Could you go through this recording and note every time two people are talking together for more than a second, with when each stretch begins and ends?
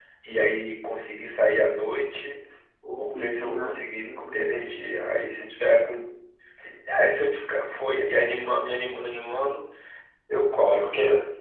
2.9-4.5

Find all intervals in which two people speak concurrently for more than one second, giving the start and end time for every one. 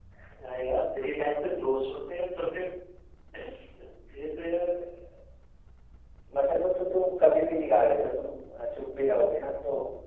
none

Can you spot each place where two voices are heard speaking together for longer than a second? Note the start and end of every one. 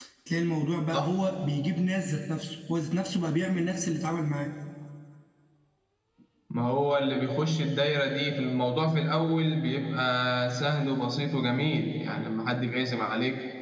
none

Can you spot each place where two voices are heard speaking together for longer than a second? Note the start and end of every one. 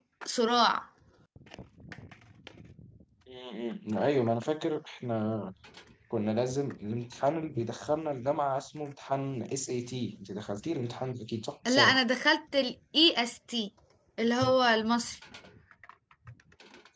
none

